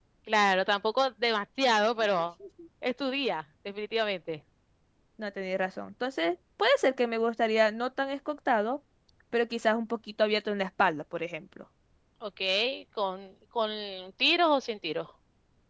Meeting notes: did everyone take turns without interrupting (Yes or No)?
Yes